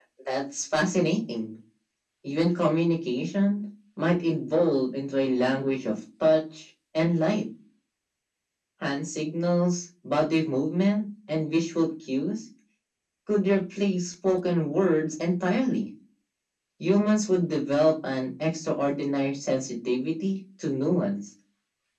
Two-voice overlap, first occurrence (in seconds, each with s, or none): none